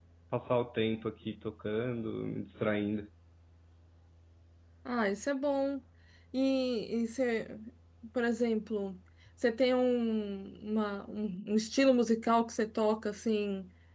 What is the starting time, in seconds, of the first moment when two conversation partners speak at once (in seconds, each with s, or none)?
none